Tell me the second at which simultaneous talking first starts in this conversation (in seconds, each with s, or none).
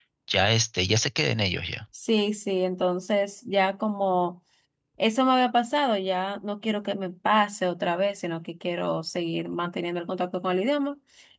none